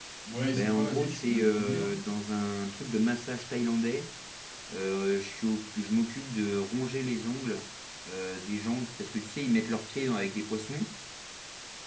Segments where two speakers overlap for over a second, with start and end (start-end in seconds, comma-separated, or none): 0.5-2.0